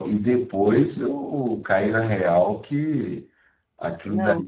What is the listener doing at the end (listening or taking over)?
listening